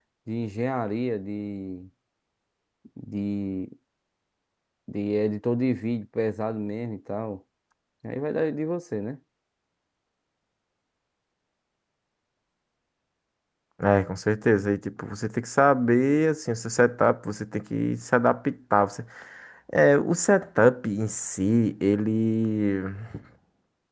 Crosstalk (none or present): none